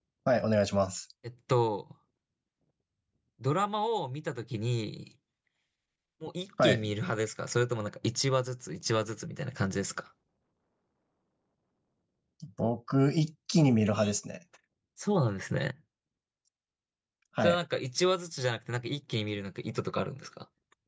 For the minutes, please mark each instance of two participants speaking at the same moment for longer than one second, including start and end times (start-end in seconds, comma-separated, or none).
none